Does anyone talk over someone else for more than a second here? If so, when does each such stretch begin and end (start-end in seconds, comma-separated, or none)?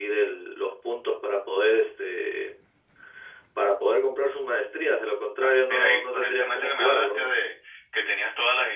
5.4-7.3